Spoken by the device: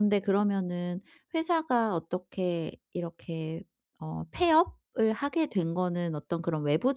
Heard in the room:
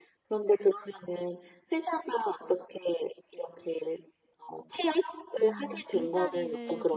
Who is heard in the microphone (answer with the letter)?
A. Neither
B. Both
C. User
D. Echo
B